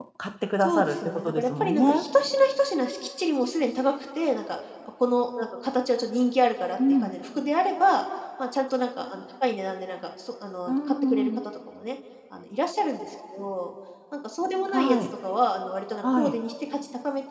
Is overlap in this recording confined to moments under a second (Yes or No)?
No